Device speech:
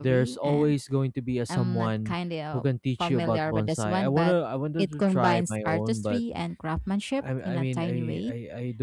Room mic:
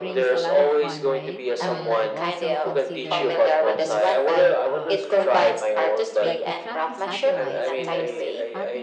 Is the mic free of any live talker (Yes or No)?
No